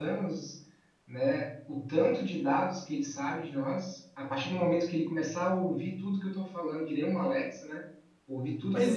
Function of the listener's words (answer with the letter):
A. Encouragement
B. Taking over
B